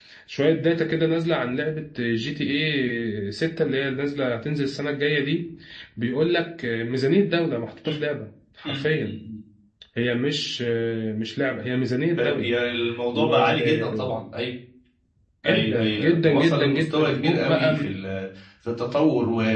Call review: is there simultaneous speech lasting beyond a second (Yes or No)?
Yes